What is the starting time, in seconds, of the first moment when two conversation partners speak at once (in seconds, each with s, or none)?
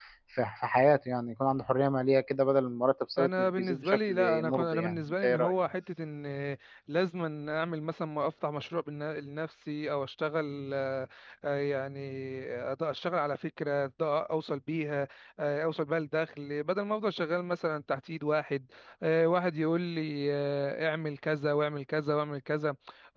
3.2 s